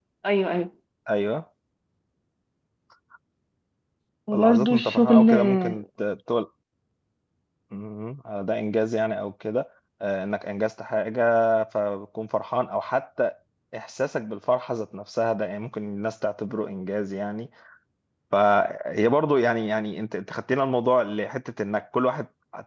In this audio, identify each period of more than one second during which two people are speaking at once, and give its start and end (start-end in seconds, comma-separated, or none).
4.3-5.7